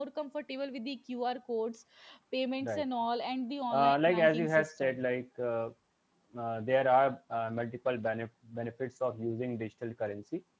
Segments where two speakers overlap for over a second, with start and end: 3.7-5.0

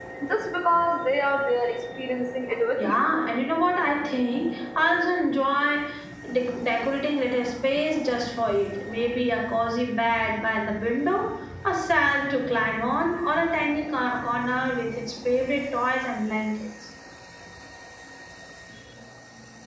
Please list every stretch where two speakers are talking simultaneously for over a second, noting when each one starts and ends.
none

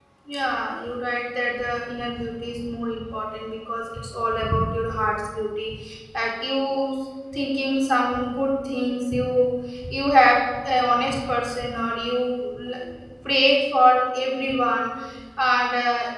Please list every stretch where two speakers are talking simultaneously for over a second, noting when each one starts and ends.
none

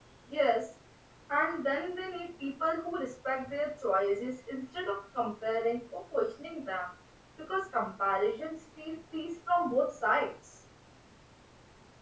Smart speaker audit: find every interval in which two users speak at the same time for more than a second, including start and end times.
none

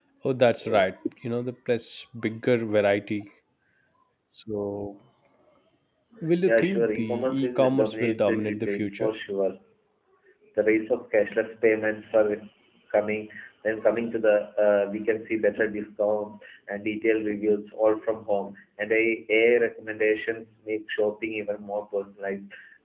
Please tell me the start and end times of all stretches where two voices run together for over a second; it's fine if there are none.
6.5-9.1

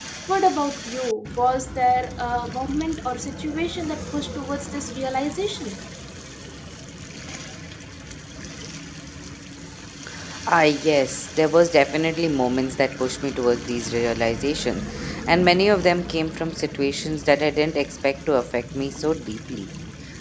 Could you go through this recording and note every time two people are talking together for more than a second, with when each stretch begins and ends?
none

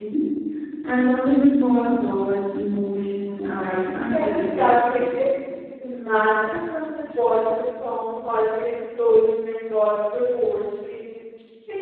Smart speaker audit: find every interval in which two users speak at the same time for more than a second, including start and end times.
3.4-5.0

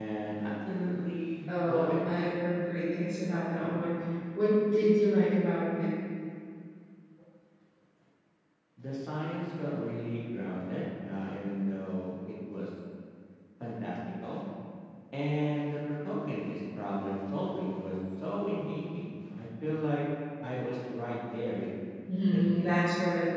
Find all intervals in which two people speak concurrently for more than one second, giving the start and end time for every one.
none

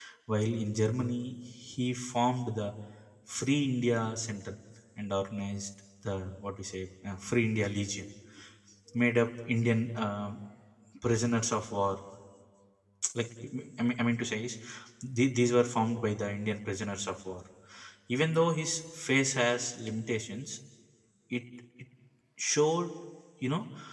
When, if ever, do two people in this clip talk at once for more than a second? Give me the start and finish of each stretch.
none

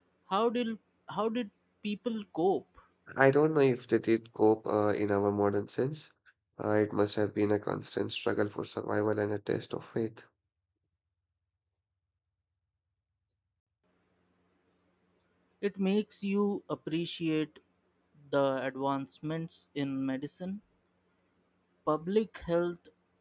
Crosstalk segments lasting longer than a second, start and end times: none

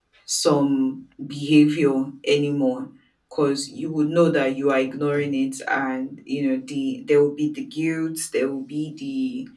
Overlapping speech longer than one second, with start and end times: none

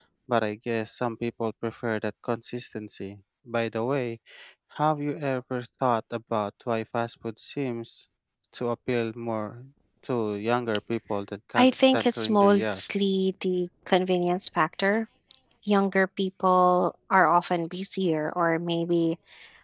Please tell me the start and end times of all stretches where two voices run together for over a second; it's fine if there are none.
11.6-13.0

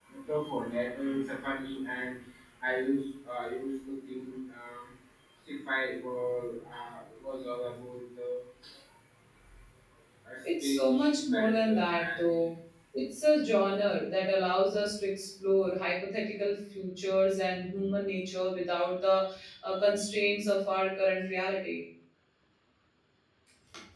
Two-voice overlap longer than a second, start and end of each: 10.6-12.5

